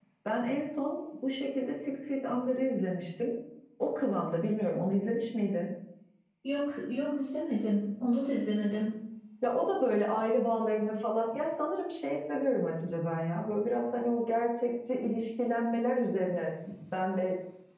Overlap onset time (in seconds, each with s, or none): none